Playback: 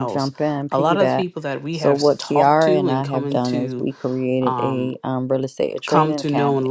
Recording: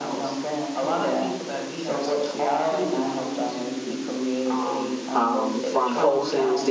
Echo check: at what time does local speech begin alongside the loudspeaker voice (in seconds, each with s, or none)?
5.1 s